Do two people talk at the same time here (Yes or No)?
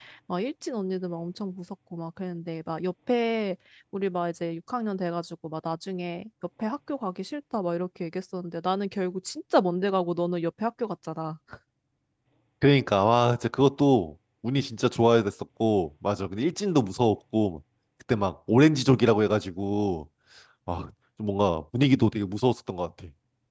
No